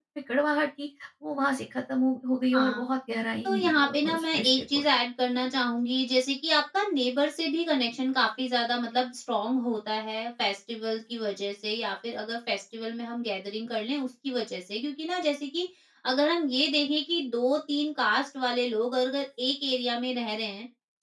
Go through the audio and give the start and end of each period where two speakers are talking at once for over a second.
3.4-4.8

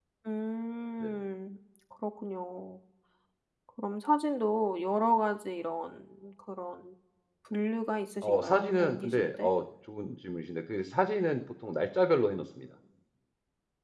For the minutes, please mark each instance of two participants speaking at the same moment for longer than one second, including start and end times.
8.2-9.5

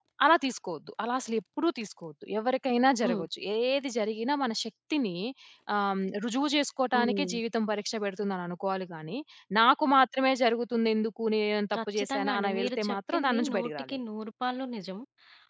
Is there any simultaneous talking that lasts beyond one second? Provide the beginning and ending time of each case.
11.8-13.9

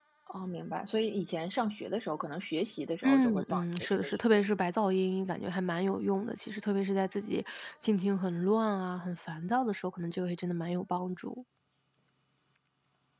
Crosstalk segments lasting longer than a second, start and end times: 3.0-4.5

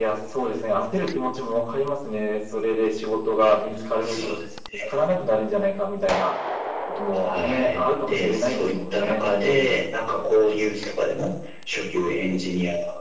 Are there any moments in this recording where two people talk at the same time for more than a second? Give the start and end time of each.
7.3-9.9

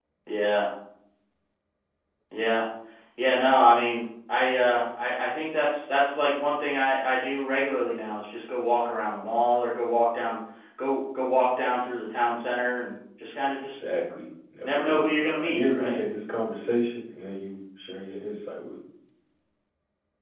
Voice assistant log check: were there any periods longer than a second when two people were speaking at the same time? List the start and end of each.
14.6-16.0

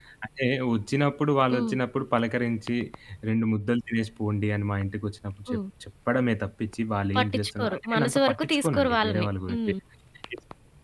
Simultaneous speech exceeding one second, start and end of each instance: 7.2-9.6

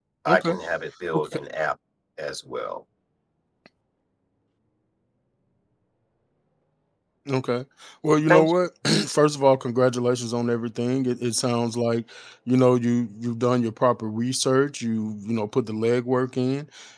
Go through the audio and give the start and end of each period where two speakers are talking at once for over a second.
none

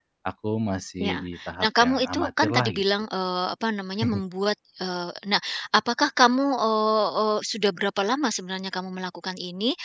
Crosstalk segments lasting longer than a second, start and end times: 1.0-2.8

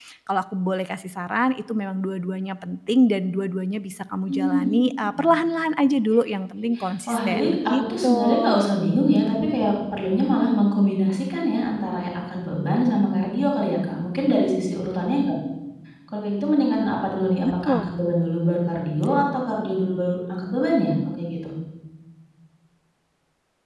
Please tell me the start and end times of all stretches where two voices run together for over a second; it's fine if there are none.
7.1-8.6

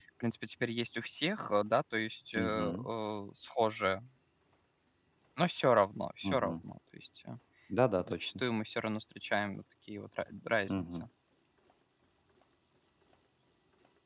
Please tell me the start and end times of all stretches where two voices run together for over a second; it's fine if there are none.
none

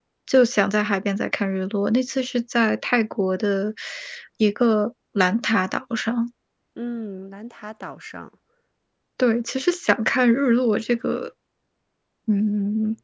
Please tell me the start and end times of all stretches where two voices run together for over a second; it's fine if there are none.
none

